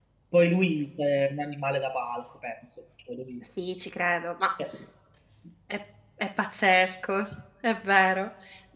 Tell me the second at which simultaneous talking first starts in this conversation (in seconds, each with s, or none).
none